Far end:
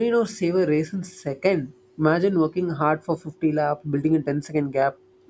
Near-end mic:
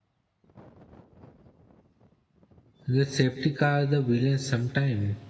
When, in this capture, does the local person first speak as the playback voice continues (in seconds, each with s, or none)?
2.9 s